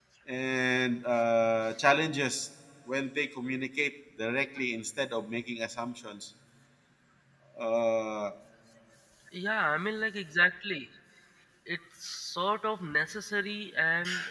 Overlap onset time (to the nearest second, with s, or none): none